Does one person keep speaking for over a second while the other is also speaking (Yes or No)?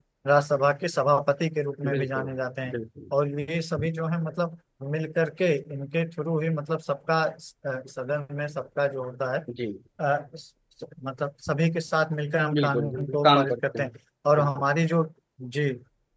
Yes